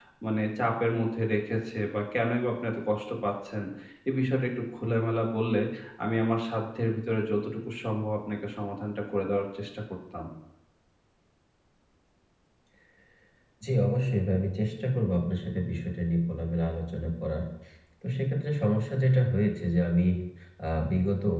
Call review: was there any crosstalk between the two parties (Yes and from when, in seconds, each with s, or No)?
No